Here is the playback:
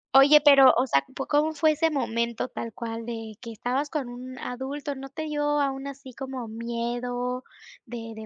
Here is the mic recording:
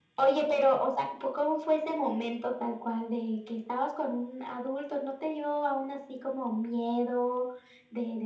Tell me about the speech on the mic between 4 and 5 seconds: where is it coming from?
echo only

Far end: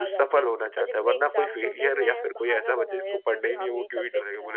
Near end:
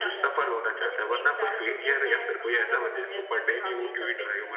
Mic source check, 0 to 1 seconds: echo only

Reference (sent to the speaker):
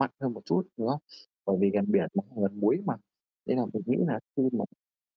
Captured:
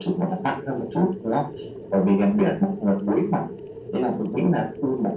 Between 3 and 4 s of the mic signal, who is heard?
echo only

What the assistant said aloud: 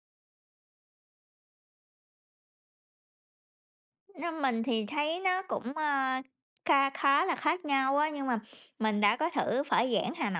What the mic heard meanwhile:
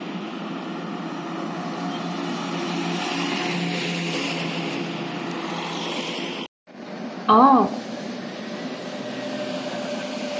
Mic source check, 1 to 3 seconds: neither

